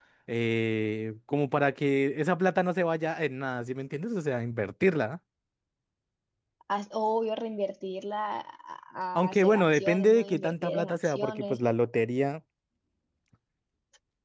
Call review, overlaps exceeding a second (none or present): present